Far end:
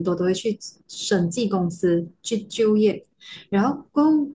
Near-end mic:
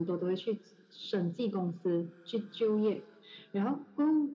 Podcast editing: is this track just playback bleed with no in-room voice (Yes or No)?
Yes